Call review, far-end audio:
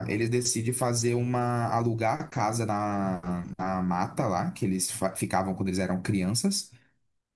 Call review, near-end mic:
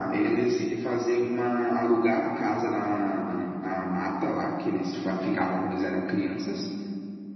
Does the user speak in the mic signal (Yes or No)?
No